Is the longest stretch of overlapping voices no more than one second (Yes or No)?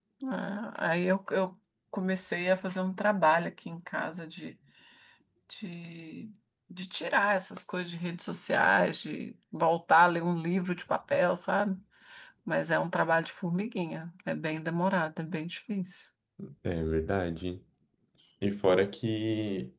Yes